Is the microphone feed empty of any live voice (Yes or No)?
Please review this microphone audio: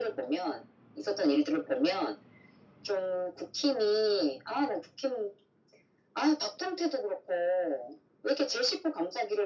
Yes